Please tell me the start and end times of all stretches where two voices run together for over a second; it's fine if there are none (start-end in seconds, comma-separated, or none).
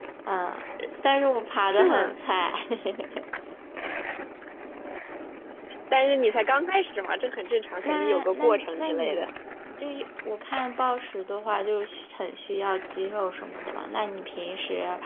7.8-9.3